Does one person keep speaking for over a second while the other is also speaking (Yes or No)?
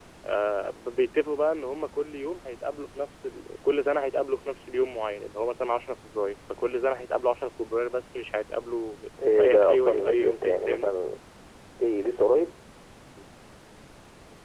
Yes